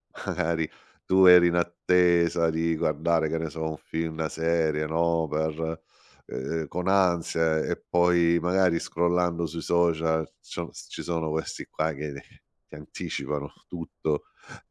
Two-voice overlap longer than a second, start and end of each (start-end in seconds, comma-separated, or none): none